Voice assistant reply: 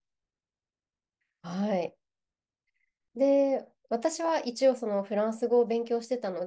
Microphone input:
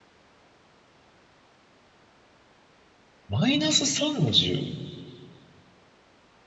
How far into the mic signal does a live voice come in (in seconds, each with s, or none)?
3.3 s